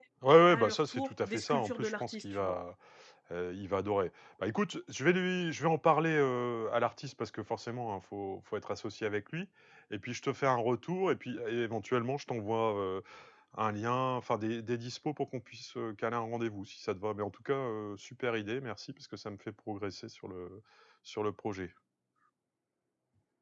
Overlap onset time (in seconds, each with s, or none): 0.5 s